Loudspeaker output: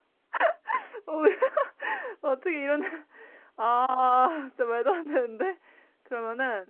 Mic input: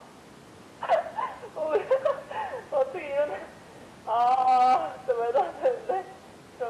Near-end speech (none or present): none